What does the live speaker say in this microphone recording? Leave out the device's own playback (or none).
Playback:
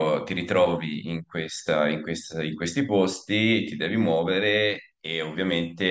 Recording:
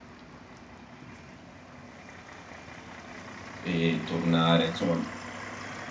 e tornare, insomma.